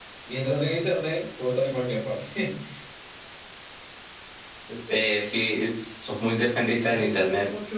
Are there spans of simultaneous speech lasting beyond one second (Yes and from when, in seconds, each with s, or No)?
No